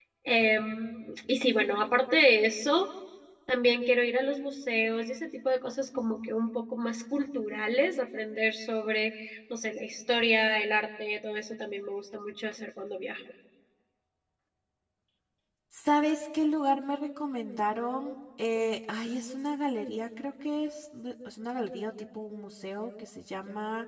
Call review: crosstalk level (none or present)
none